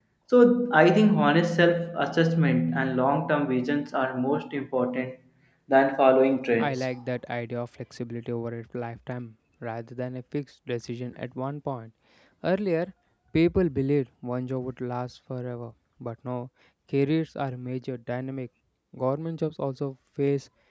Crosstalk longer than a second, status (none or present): none